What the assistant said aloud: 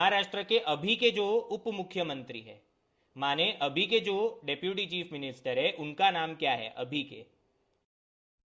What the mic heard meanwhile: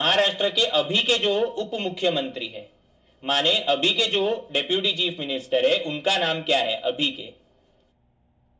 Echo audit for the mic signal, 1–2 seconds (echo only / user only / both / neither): echo only